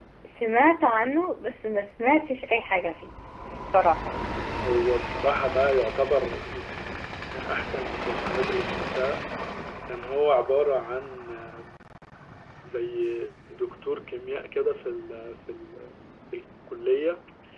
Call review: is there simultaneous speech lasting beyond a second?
No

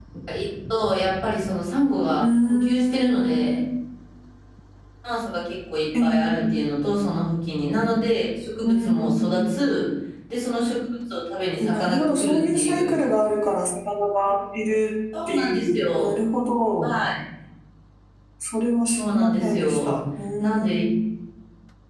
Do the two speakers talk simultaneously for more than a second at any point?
Yes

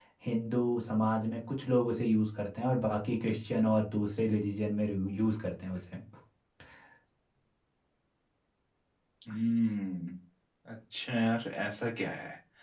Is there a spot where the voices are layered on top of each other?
No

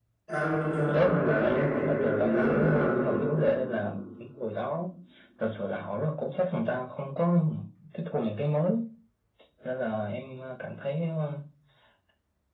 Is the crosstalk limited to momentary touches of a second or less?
No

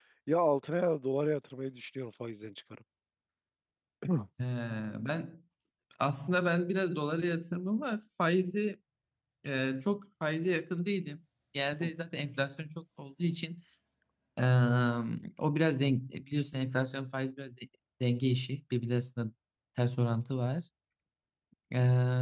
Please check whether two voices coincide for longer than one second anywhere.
No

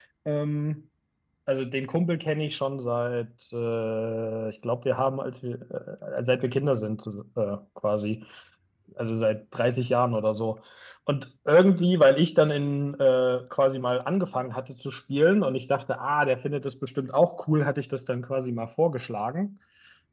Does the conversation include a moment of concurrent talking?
No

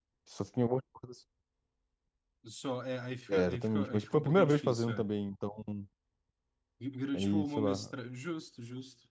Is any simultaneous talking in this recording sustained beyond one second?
Yes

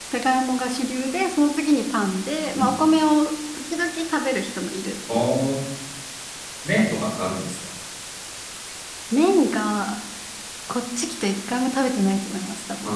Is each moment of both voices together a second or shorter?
Yes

